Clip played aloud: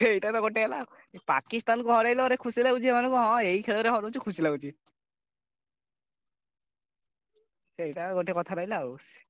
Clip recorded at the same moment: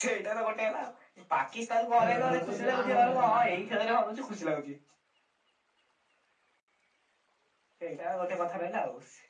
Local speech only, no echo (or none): ଖେଳ ଖେଳୁଚେ କି ଆମର ଦେଖ ତା